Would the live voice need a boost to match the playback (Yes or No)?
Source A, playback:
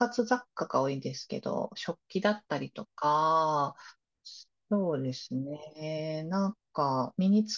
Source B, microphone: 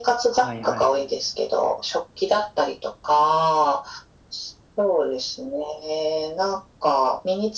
Yes